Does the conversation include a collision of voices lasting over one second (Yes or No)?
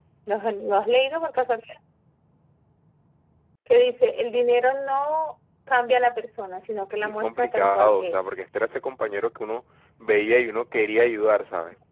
Yes